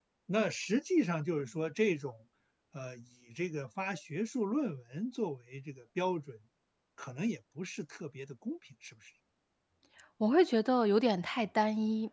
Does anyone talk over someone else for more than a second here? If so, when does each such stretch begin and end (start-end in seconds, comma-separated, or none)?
none